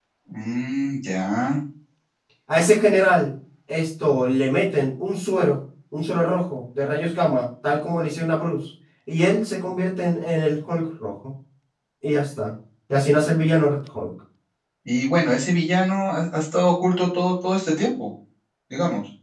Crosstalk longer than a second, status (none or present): none